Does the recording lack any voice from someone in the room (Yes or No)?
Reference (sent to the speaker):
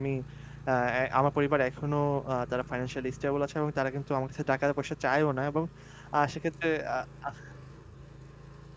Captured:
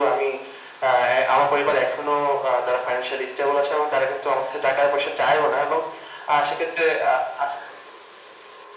Yes